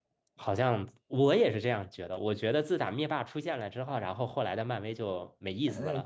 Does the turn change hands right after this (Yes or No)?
Yes